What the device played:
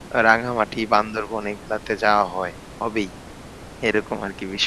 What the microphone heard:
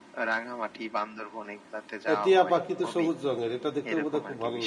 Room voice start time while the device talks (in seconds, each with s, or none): 2.1 s